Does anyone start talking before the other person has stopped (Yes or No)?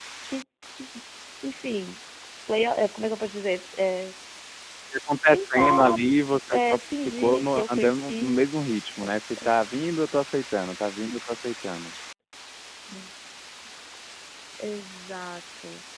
Yes